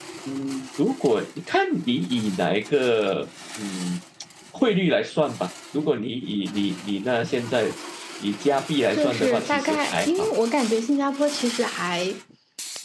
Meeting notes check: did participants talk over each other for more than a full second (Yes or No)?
Yes